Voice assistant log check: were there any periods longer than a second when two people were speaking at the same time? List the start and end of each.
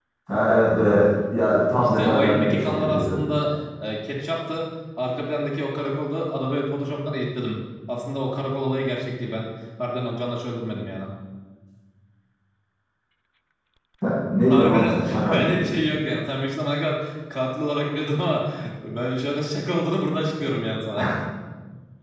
1.8-3.2, 14.4-15.6

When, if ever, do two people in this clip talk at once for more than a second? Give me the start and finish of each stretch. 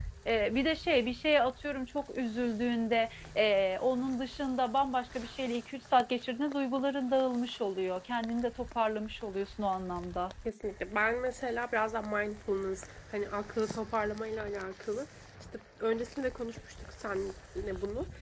none

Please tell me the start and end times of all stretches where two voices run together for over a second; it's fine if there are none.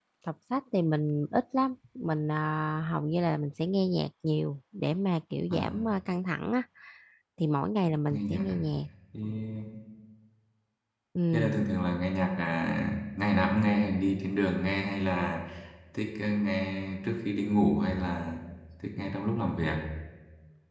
none

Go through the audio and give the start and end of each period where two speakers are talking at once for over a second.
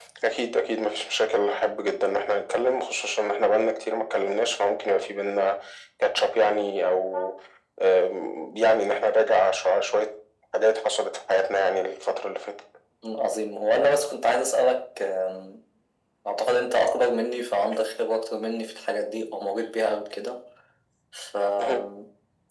none

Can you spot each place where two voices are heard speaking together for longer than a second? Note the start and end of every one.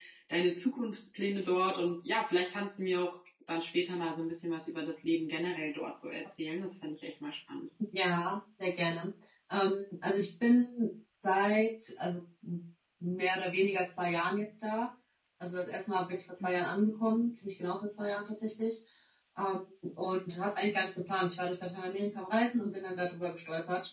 none

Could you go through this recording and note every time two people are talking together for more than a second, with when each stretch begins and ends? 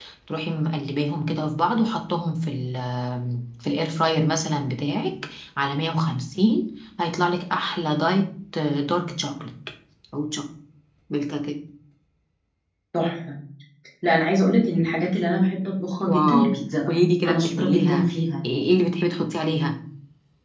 16.1-18.1

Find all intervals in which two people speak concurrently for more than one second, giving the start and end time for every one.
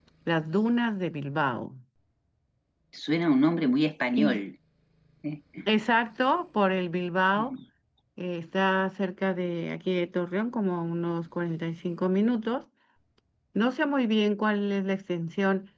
none

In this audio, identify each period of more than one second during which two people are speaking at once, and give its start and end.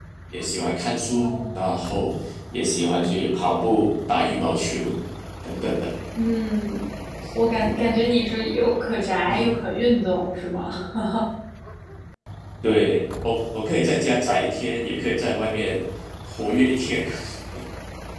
none

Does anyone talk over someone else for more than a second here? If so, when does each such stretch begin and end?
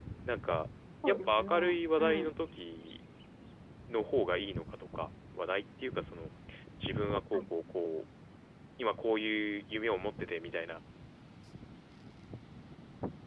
1.1-2.3

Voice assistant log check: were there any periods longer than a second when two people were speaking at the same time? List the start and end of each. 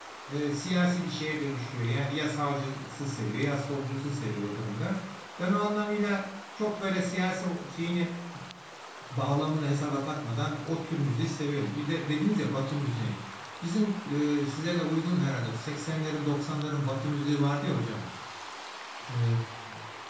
none

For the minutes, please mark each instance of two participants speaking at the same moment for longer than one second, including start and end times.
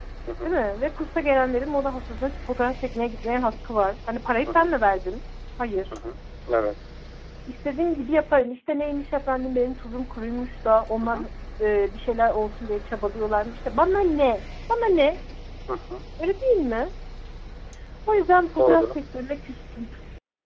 none

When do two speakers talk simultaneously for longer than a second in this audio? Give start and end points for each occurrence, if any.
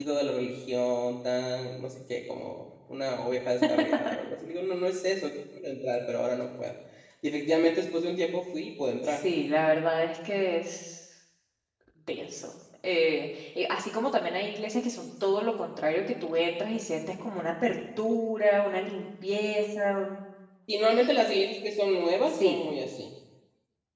none

